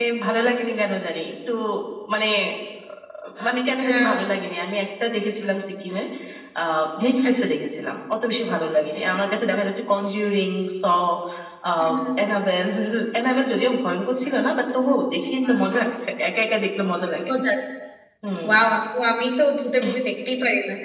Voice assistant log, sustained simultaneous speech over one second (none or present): none